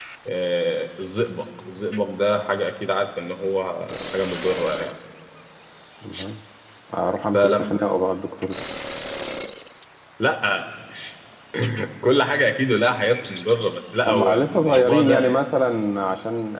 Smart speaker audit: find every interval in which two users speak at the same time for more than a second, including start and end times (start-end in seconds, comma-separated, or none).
14.1-15.4